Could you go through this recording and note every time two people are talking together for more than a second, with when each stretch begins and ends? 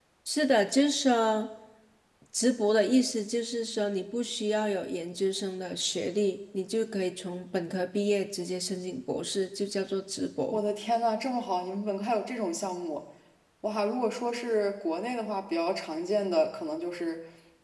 none

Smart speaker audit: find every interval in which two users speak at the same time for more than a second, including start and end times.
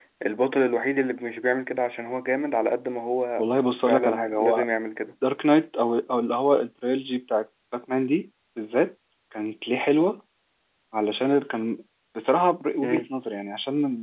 3.4-4.7

